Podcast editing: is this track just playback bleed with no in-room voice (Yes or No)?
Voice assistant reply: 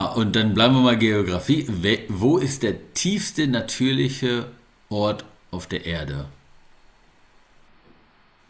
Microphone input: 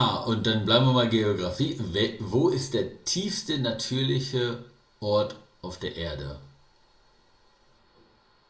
Yes